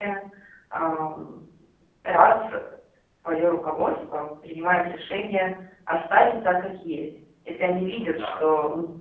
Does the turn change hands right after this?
No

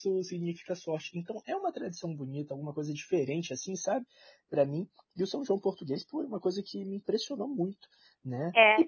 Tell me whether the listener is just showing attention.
No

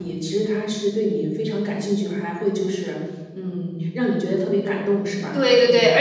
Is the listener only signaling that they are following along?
No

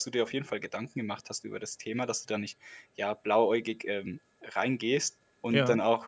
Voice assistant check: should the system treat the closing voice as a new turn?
No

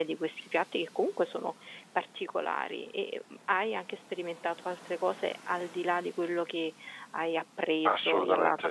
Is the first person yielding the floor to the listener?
Yes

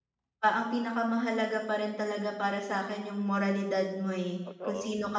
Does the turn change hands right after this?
No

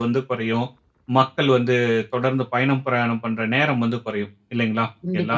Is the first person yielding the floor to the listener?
No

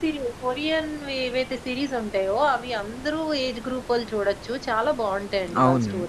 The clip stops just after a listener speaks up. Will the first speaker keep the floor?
No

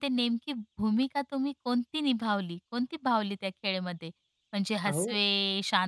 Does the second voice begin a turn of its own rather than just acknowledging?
No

